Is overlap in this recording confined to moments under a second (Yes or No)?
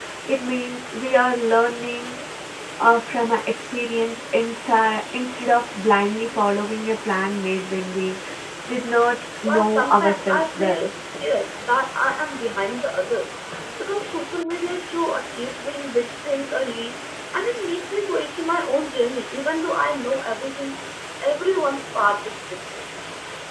No